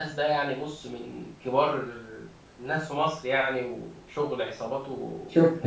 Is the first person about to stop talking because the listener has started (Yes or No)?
Yes